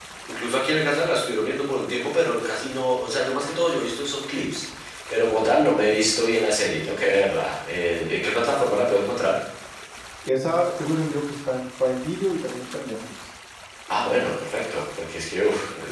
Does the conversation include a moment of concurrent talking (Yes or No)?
No